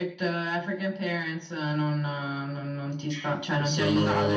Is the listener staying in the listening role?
No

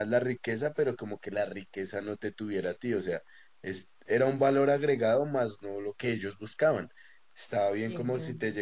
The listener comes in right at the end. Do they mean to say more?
No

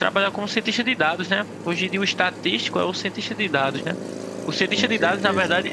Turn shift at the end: No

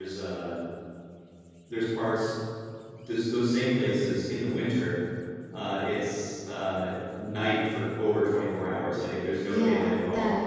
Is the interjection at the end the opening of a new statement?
Yes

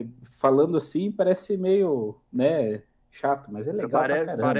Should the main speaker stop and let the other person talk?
Yes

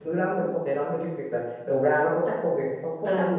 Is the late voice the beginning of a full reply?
Yes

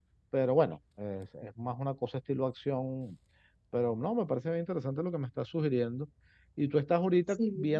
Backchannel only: Yes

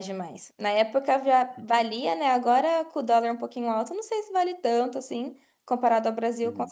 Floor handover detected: No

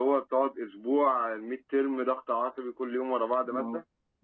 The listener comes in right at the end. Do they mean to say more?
Yes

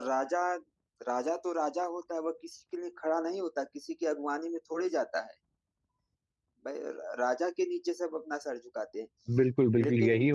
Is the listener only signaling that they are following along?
No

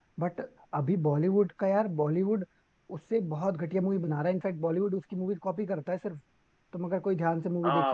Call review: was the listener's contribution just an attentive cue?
No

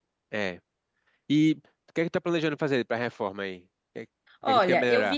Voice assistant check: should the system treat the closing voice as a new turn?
Yes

